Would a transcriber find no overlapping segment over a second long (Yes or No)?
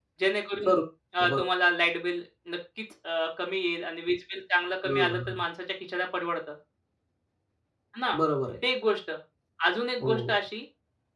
Yes